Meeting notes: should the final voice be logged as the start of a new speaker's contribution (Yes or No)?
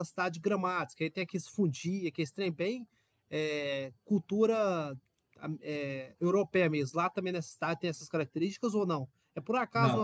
No